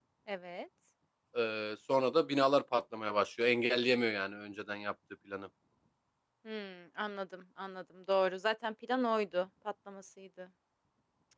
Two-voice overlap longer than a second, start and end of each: none

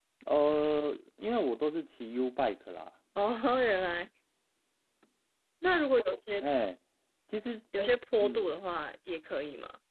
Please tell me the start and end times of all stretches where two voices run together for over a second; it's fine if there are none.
none

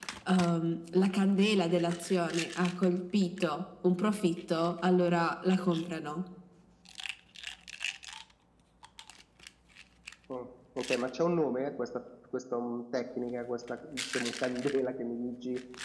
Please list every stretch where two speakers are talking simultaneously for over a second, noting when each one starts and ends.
none

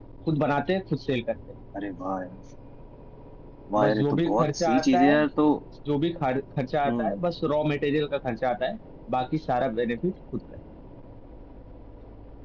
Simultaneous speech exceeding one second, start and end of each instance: 3.8-5.1

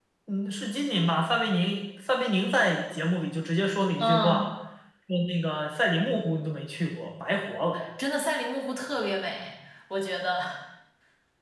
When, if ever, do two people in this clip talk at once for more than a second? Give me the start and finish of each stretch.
none

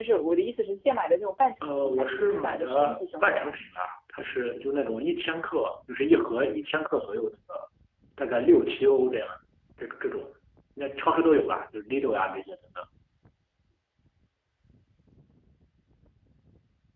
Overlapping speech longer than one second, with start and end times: 1.6-3.5

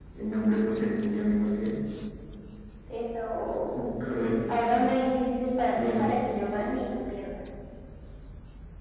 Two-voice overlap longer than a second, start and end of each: none

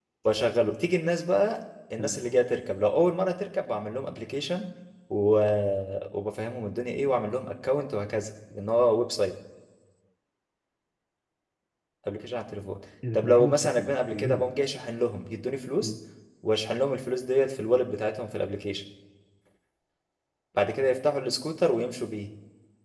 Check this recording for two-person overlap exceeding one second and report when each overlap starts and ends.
13.1-14.4

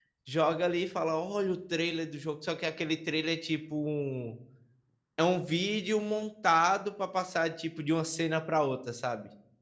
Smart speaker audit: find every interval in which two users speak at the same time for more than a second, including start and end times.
none

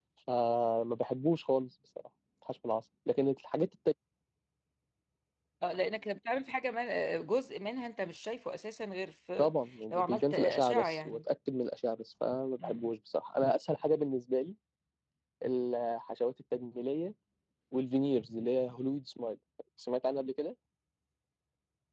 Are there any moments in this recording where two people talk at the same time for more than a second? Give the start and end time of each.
9.9-11.2

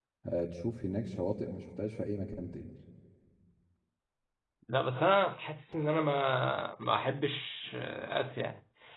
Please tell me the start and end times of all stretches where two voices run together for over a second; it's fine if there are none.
none

